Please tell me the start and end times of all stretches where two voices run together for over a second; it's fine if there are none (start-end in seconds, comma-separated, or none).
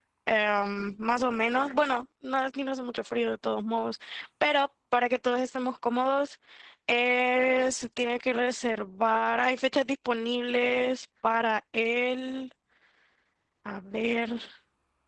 none